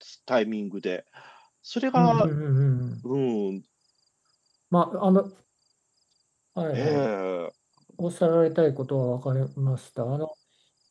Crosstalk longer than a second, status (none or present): none